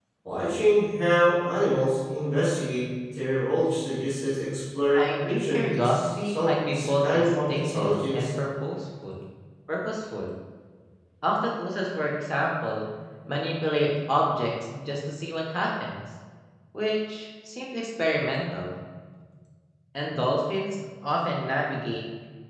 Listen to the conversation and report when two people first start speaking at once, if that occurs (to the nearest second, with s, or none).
5 s